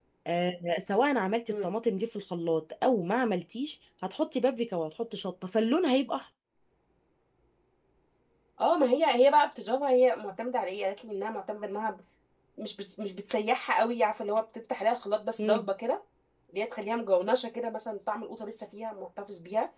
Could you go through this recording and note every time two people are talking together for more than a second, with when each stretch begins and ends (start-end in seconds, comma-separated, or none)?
none